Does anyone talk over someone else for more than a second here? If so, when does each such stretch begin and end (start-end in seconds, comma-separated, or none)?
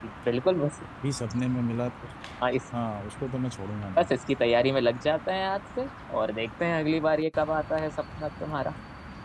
none